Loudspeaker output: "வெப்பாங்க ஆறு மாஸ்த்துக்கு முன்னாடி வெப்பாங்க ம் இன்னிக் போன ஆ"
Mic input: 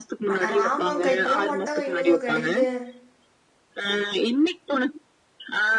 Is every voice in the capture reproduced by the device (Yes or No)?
No